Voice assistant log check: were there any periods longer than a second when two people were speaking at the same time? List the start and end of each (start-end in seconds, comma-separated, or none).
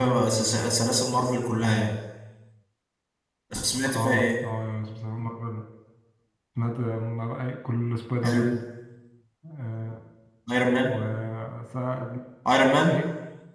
none